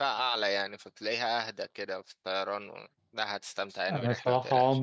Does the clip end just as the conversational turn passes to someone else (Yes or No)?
Yes